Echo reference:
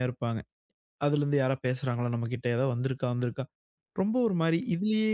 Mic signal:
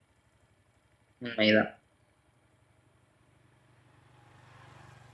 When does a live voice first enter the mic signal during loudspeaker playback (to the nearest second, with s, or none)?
1 s